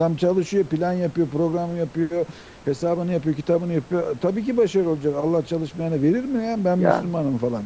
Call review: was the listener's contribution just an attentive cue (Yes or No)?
Yes